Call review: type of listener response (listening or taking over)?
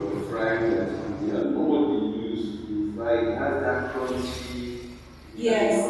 taking over